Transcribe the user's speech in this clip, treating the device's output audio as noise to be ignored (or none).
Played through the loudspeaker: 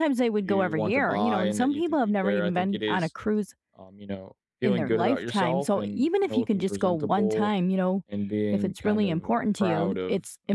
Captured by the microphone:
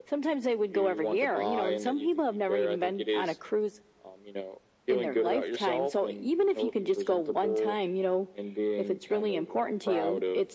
none